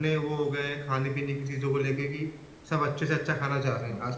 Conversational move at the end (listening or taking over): listening